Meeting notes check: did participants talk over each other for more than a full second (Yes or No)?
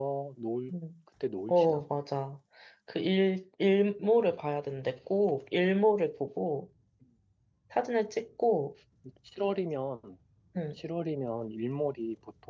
No